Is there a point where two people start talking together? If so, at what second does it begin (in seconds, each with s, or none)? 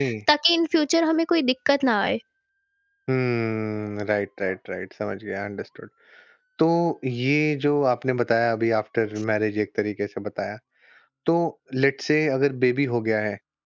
none